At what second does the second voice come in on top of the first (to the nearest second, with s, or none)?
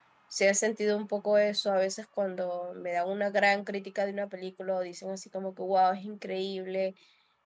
none